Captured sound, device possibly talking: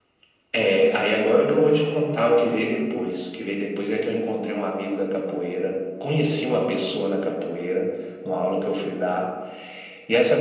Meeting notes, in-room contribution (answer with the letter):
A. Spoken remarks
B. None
B